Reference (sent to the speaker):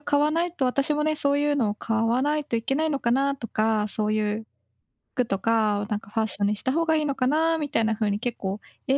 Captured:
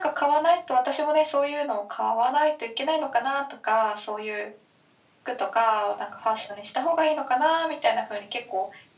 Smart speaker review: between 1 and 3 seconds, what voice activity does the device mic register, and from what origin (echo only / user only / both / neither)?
echo only